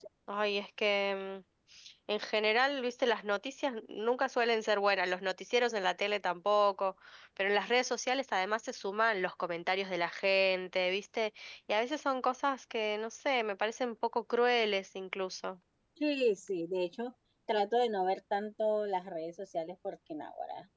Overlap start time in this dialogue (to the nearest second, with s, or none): none